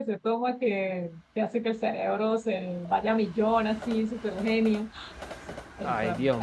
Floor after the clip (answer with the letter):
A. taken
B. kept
A